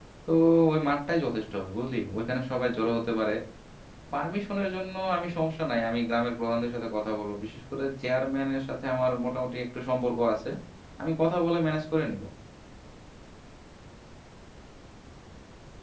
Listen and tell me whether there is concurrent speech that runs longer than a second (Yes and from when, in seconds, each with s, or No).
No